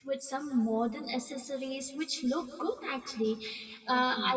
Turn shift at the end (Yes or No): No